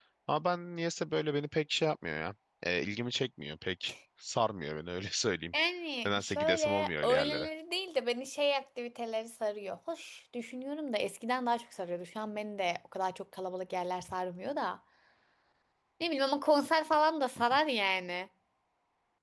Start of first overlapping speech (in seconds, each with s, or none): 6.0 s